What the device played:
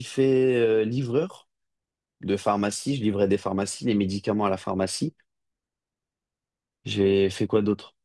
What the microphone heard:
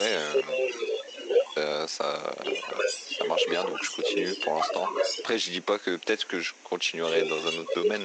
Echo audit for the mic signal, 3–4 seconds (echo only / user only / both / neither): both